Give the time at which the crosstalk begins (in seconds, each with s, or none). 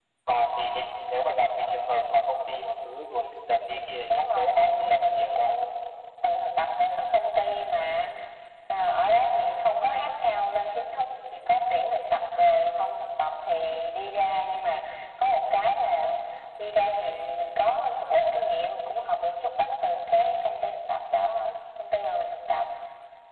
4.1 s